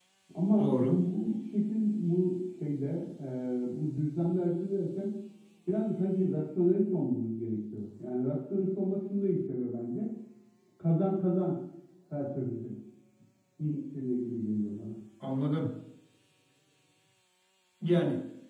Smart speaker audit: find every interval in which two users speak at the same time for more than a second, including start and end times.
none

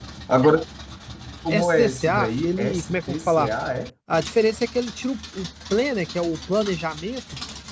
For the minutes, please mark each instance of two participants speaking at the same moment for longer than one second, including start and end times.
1.5-3.5

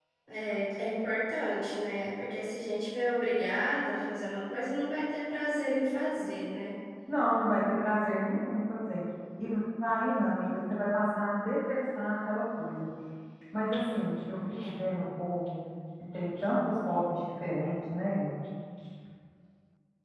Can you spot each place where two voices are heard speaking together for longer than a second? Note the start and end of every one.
none

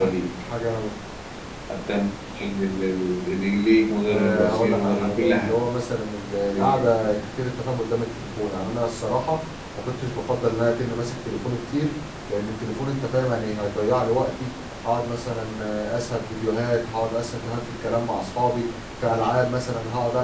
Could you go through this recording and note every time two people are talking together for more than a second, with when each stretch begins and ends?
4.1-5.5

